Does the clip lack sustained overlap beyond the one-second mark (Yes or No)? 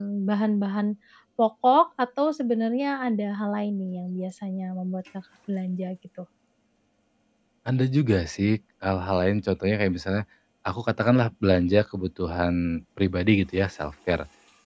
Yes